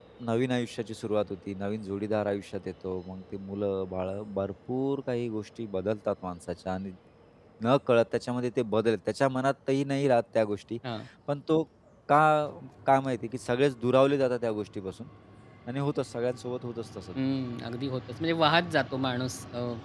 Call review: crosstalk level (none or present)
none